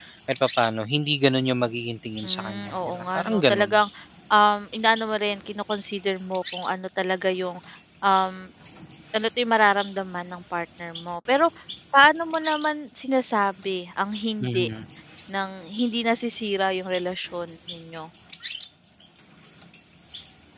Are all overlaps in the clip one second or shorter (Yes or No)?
No